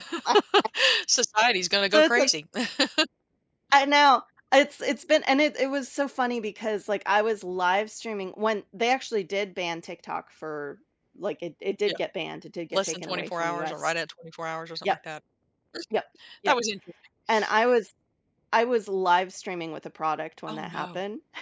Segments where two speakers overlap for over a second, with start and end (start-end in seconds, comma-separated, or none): 12.7-13.9